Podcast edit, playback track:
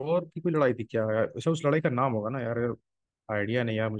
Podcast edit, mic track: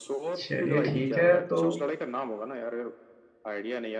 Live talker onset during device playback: 0.4 s

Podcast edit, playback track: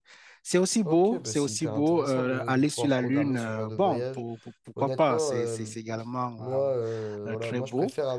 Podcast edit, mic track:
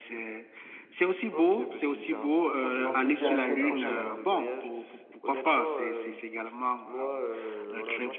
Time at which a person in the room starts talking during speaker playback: 2.7 s

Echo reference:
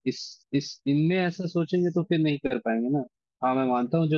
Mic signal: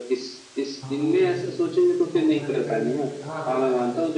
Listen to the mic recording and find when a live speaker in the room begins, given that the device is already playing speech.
0.8 s

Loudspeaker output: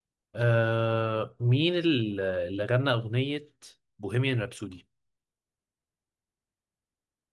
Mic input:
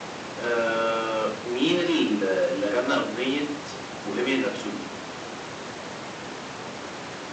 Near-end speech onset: none

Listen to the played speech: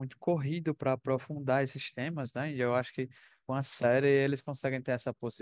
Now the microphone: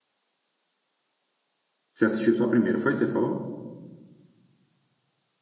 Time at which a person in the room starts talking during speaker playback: 1.9 s

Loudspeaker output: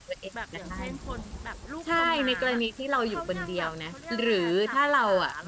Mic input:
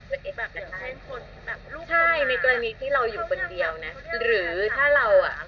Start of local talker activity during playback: none

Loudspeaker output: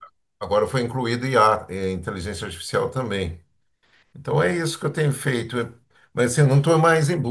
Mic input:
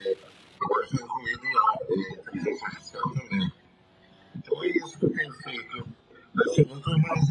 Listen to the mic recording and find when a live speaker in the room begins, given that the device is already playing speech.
none

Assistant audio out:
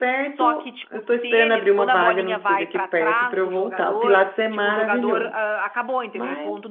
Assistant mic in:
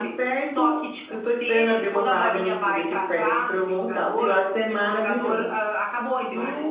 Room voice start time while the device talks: none

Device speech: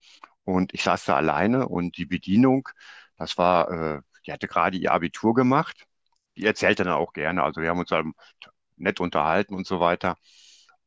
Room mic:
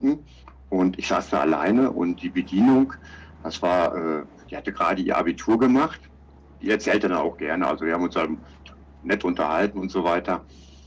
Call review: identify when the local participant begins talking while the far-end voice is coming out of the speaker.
none

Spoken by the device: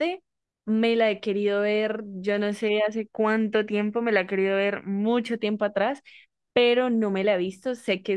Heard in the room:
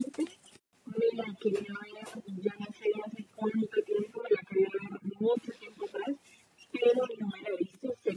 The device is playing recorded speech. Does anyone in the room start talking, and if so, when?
none

